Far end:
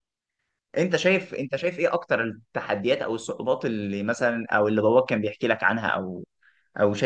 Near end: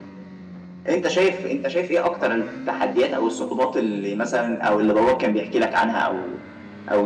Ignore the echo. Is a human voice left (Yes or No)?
No